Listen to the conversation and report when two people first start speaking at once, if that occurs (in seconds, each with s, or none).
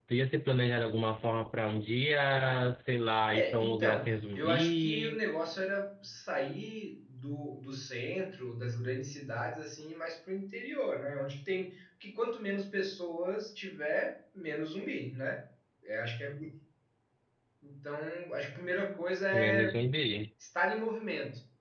3.3 s